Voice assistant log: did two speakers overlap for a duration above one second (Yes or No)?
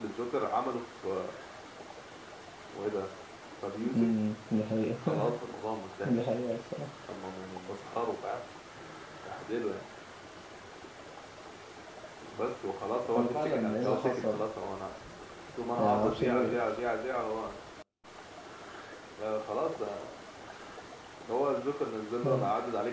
Yes